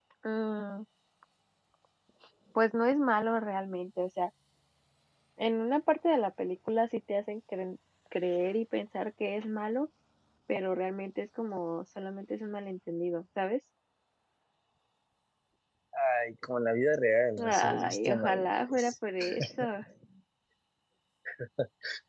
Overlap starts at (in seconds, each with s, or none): 17.4 s